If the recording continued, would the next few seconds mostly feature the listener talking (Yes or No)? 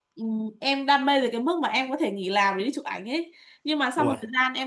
No